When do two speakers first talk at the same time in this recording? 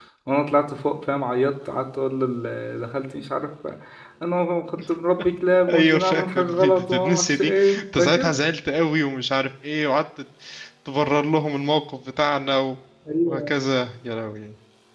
6 s

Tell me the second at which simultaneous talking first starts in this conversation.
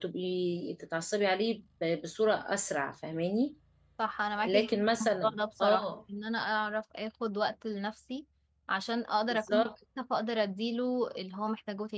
4 s

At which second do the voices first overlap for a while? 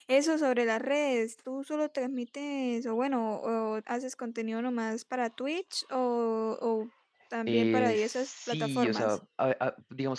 7 s

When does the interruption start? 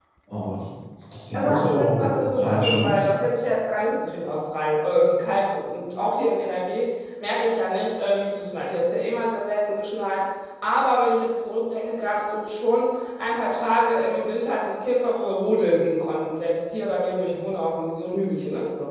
1 s

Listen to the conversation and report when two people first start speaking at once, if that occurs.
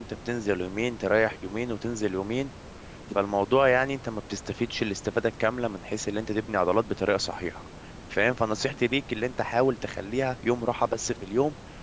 none

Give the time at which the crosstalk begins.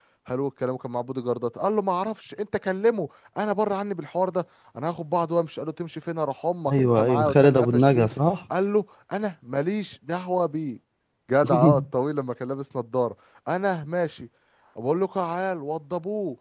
7 s

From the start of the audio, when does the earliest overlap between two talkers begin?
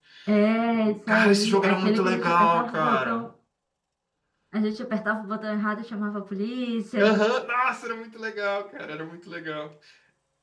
1 s

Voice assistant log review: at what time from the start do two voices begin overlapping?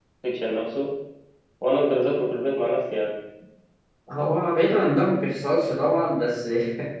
none

